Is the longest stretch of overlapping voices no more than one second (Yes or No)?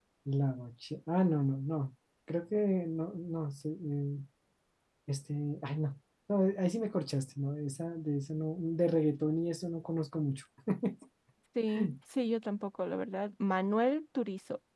Yes